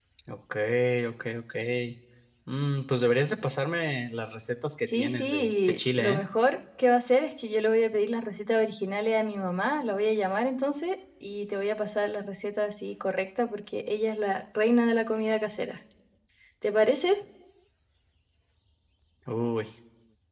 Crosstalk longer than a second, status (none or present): present